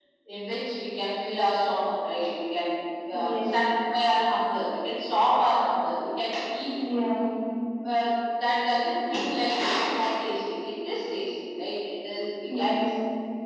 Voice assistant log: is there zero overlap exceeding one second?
Yes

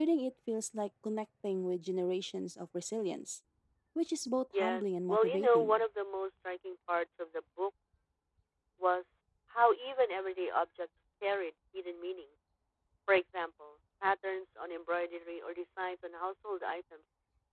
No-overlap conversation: No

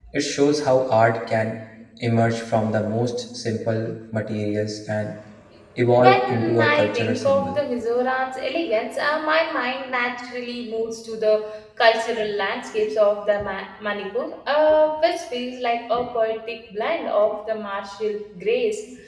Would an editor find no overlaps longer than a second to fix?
No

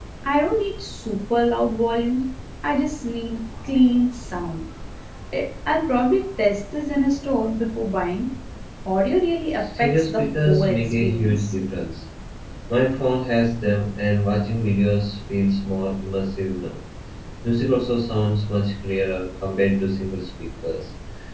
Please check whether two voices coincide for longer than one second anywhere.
Yes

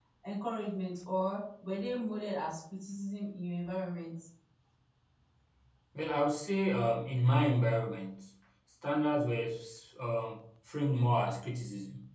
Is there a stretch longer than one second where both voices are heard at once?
No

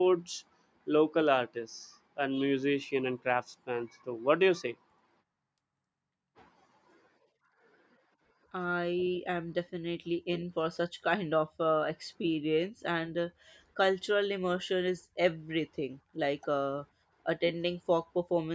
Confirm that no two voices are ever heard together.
Yes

